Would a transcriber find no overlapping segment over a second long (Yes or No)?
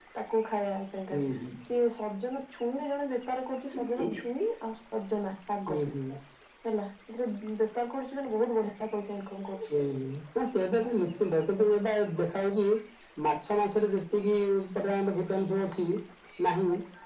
Yes